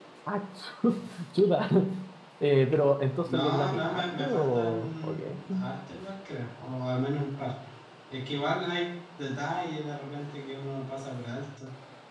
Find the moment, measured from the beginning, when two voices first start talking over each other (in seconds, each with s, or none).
3.3 s